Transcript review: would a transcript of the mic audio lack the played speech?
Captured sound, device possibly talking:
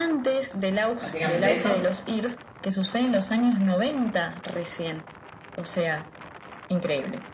No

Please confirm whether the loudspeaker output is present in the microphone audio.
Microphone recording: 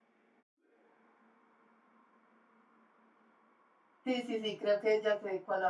No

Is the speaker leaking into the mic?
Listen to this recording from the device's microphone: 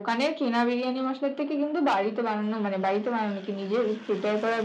Yes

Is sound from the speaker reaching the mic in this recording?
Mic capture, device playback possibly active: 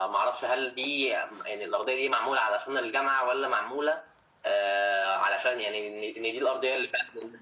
Yes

